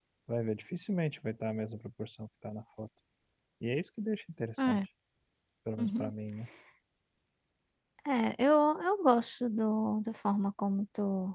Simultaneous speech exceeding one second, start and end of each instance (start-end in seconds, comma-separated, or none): none